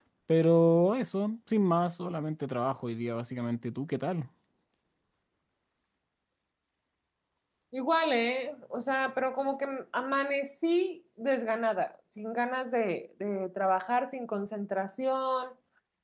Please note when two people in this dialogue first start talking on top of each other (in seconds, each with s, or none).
none